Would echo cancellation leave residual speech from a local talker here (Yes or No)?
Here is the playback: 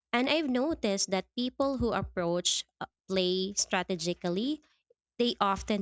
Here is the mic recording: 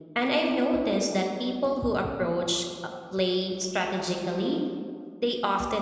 No